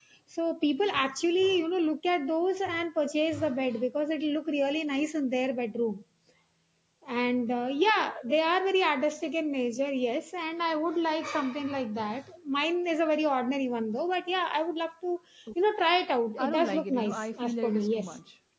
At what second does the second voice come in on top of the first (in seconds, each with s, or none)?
16.4 s